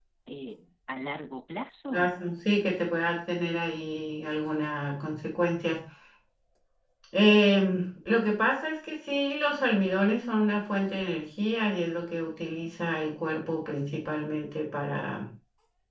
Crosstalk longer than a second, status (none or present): none